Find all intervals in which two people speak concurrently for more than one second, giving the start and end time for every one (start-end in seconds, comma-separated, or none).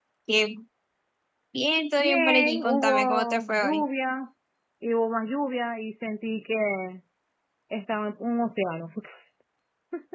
2.0-3.8